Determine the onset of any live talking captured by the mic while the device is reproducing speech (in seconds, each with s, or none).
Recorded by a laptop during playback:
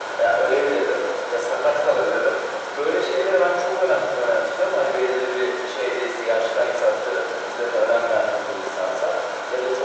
none